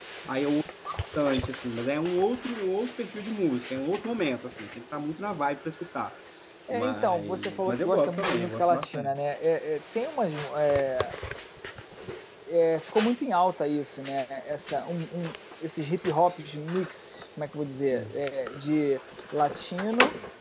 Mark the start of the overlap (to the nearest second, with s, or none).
7 s